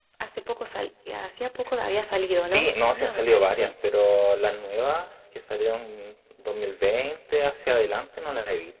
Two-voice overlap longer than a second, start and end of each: 2.2-3.7

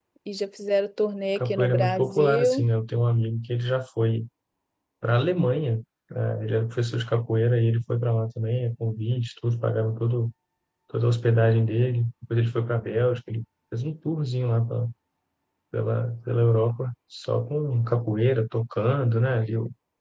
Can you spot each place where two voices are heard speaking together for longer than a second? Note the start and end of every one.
1.4-2.6

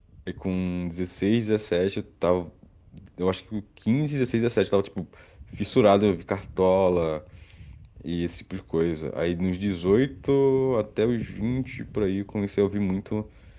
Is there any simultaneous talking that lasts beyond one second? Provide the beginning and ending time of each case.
none

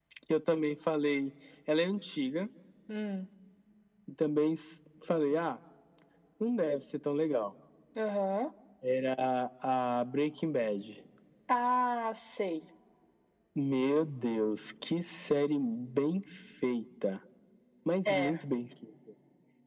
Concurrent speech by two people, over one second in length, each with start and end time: none

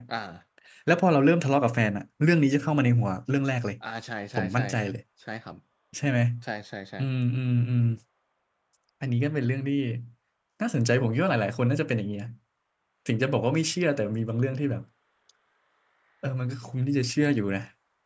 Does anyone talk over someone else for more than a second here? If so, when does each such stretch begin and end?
none

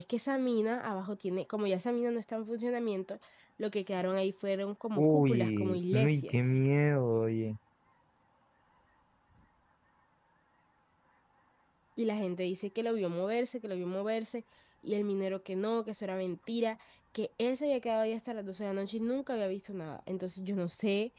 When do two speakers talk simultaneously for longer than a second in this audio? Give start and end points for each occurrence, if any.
5.0-6.4

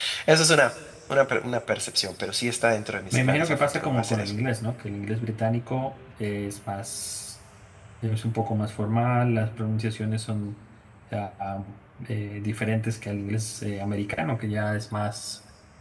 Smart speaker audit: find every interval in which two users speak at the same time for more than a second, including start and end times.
3.1-4.3

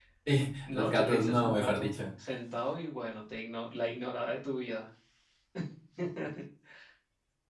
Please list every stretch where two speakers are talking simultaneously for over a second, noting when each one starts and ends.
0.7-1.9

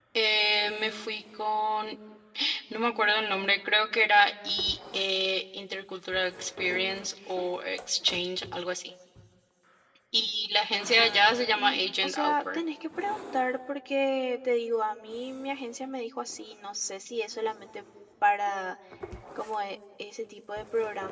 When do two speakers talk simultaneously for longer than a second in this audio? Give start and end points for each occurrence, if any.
11.0-12.6

